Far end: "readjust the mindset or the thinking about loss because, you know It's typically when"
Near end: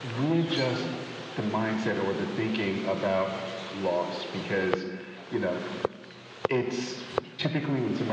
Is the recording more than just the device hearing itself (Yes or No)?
No